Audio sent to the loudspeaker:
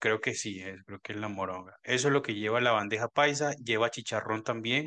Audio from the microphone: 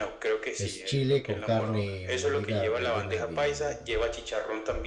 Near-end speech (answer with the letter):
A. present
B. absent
A